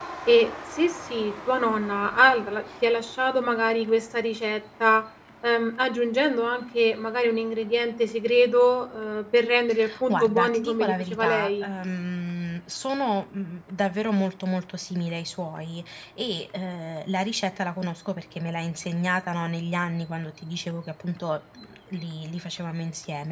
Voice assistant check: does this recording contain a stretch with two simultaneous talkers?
Yes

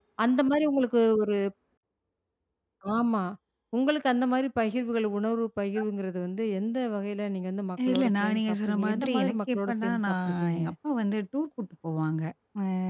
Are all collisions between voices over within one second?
No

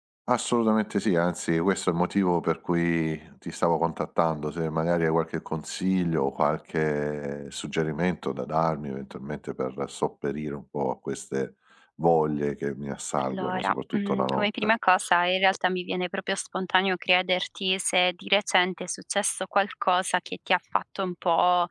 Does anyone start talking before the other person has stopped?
Yes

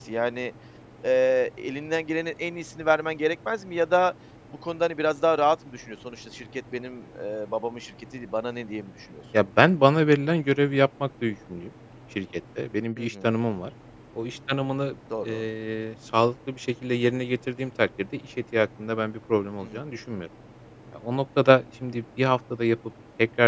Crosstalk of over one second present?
No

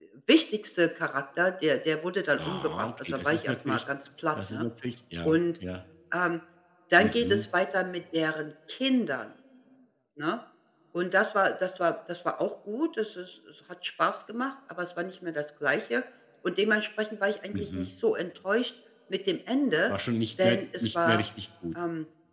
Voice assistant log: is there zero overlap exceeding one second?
No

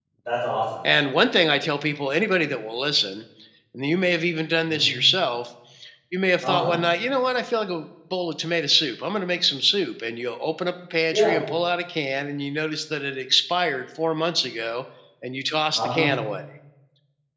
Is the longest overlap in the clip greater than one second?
No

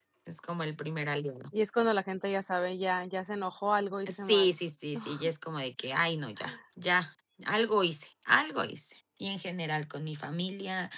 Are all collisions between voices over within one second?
Yes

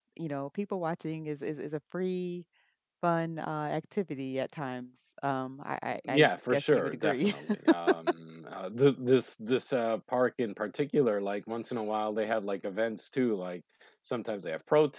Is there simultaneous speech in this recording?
Yes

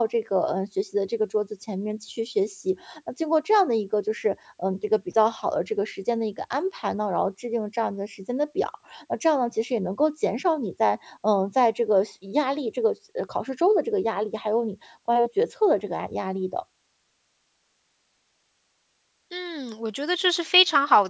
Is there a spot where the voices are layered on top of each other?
No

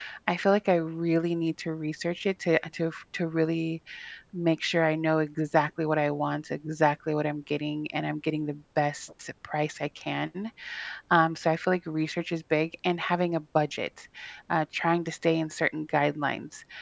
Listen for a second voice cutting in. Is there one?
No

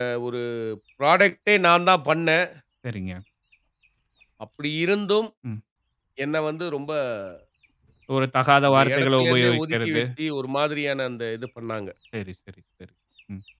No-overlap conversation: No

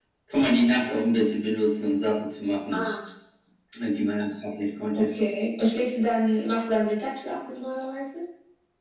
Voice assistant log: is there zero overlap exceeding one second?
Yes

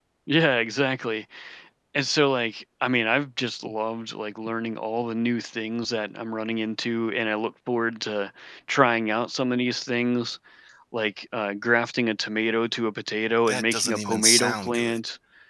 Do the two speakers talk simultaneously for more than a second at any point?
Yes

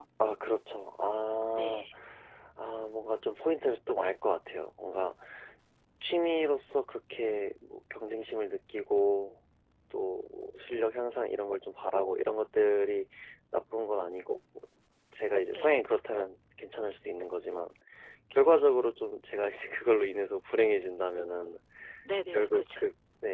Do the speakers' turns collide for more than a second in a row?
No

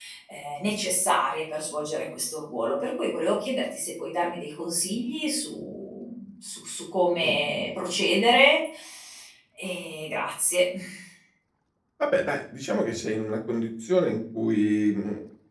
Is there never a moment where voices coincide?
Yes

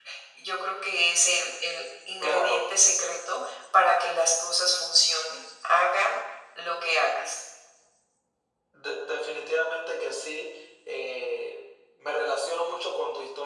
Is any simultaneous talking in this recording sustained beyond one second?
No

